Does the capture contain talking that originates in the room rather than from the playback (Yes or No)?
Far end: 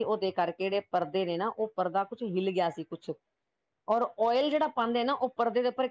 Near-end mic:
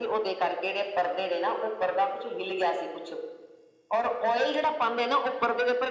No